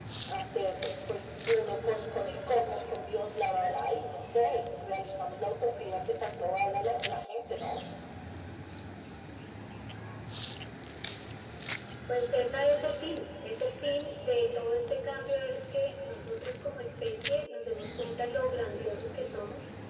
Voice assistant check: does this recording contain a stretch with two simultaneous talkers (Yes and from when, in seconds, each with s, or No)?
No